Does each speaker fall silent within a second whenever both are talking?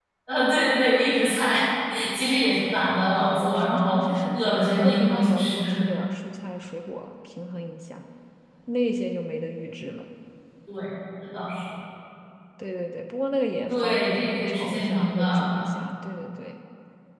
No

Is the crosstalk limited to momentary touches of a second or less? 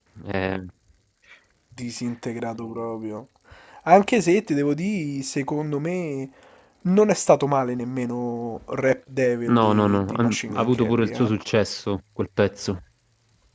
No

